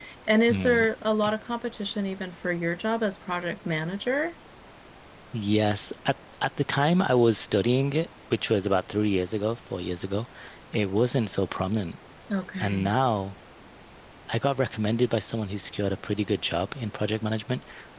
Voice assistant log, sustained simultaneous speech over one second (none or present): none